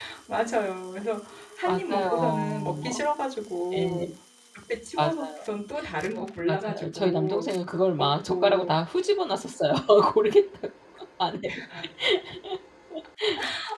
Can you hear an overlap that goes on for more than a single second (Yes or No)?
Yes